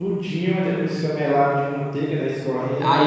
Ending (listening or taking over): taking over